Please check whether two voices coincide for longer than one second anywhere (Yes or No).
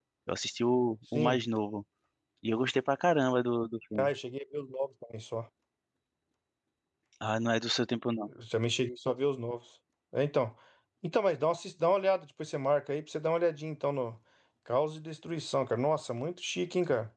No